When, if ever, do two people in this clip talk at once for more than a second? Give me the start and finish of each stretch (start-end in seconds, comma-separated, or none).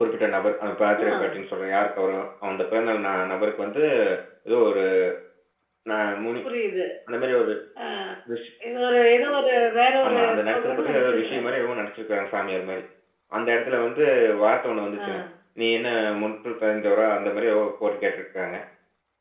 10.1-11.5